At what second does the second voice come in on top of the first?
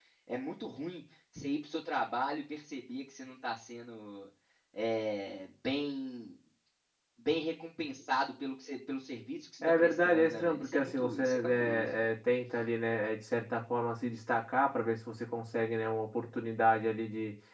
10 s

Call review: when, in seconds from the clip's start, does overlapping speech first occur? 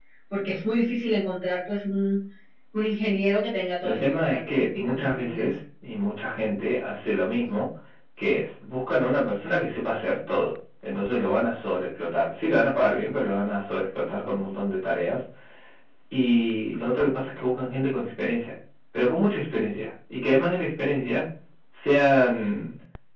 4 s

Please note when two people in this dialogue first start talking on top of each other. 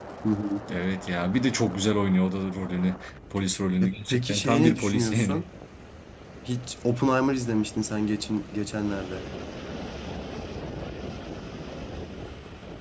4 s

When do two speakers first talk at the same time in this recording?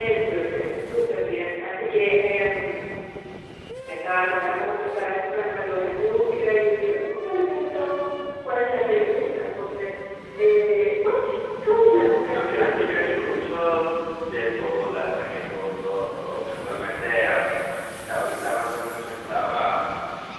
12 s

